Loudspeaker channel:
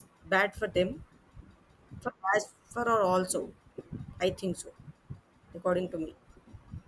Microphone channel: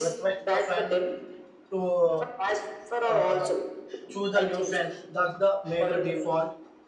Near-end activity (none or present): present